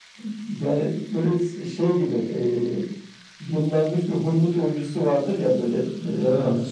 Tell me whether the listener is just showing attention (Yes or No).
Yes